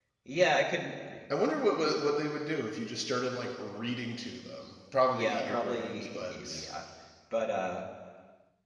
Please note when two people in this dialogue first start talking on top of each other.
5.1 s

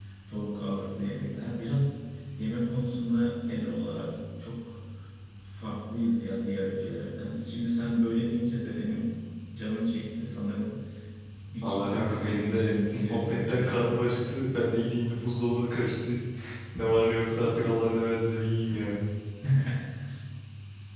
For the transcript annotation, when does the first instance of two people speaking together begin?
11.6 s

